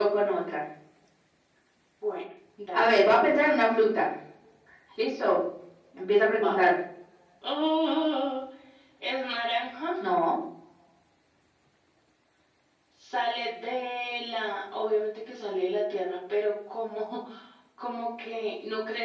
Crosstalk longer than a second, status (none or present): none